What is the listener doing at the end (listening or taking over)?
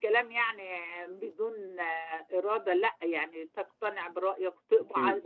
listening